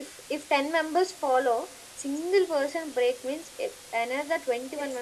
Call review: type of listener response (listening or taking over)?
taking over